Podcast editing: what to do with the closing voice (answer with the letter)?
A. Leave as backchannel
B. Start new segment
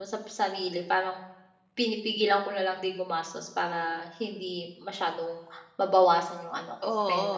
B